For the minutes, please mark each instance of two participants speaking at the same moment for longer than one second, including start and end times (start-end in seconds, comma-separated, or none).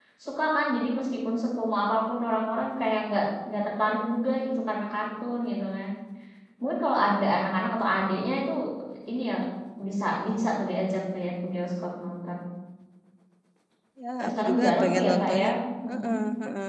14.2-15.5